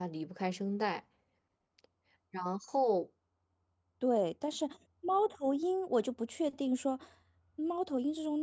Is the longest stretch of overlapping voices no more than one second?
Yes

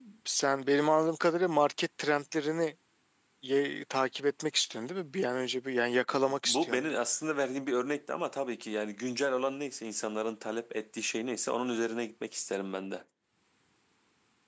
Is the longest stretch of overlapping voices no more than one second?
Yes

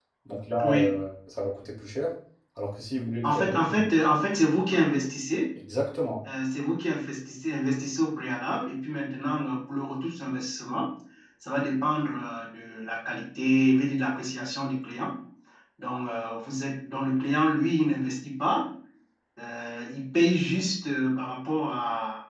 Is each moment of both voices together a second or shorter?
Yes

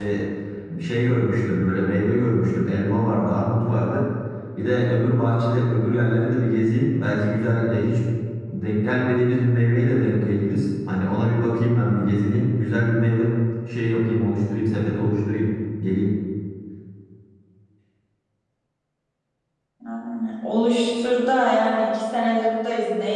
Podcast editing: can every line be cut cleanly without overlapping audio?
Yes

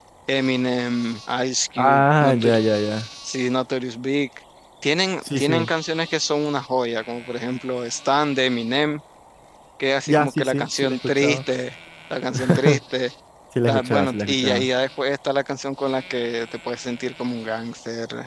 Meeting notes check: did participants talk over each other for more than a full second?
Yes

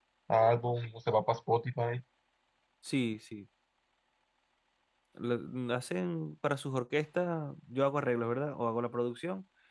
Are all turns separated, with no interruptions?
Yes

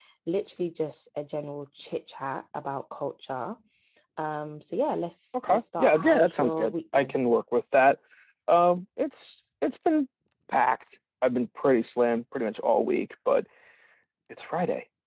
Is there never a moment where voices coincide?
No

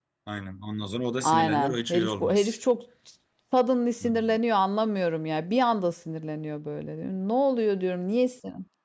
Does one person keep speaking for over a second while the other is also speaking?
Yes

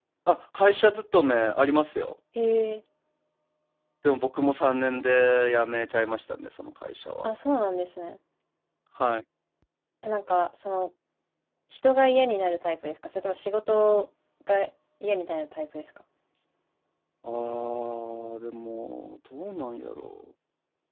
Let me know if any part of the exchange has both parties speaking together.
No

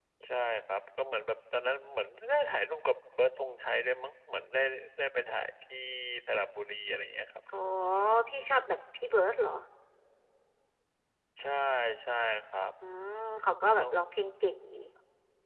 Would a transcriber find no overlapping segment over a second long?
Yes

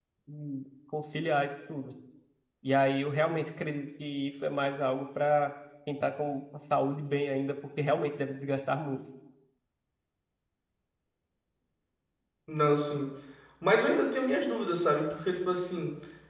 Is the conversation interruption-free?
Yes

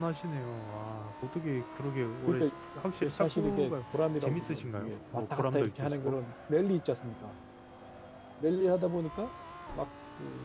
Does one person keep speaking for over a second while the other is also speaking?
Yes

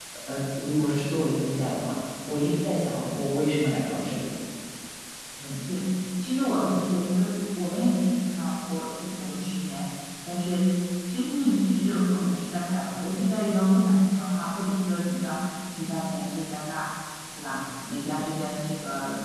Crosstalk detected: No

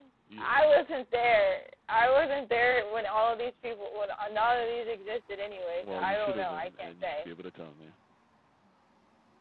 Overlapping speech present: Yes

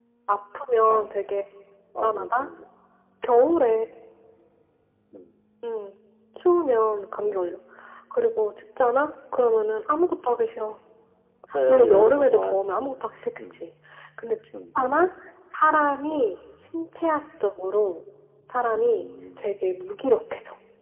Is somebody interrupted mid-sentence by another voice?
Yes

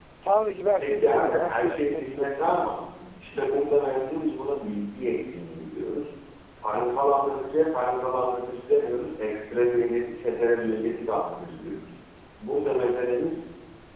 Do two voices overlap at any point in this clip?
Yes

